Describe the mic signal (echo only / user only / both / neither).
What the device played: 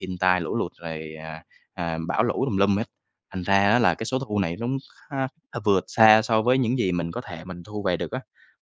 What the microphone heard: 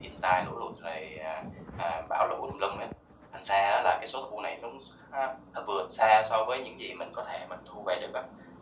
echo only